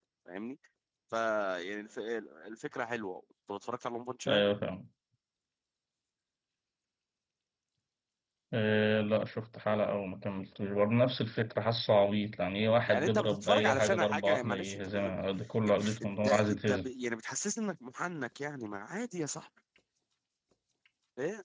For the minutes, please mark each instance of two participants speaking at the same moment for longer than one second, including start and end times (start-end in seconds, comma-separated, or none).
12.9-15.1, 15.6-16.9